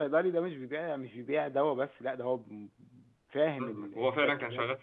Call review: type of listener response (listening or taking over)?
taking over